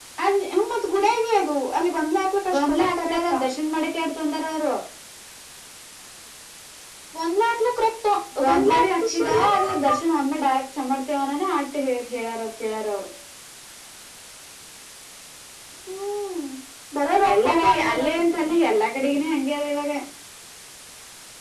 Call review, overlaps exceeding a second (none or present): present